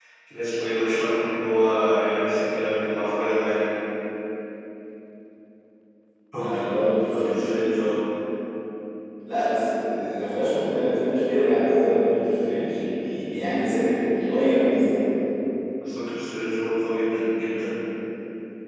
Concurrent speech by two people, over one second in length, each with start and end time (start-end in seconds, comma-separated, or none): none